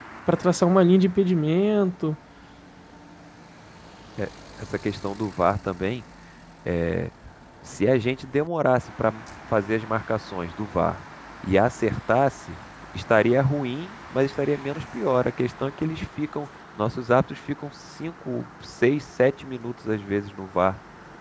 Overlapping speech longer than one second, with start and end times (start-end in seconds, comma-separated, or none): none